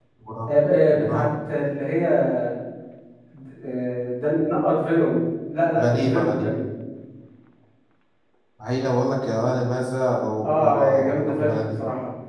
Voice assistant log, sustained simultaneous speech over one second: present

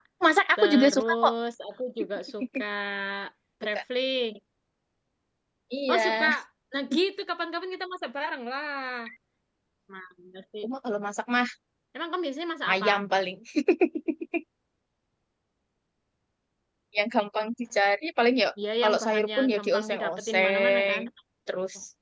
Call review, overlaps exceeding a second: present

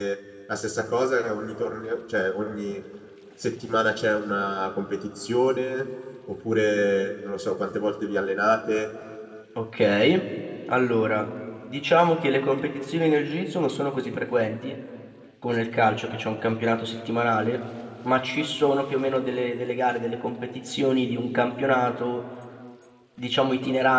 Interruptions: none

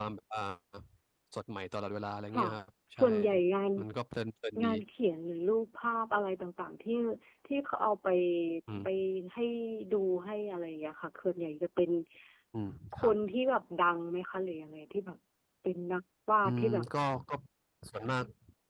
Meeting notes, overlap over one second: none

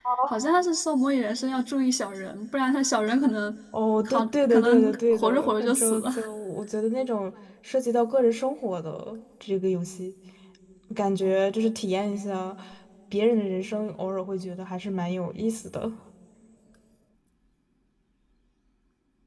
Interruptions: present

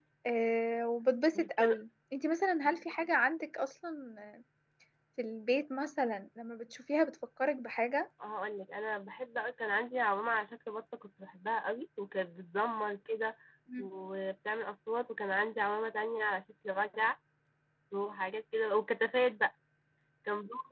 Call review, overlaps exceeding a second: none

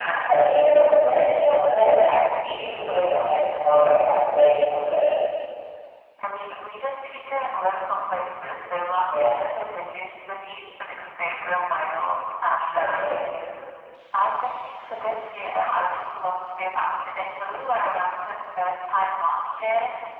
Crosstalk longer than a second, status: none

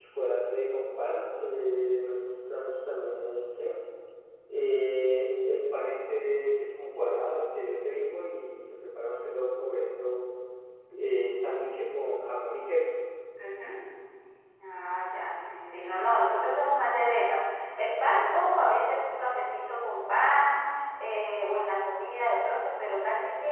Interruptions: none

